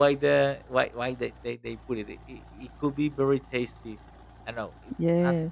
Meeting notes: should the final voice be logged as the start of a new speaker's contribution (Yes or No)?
No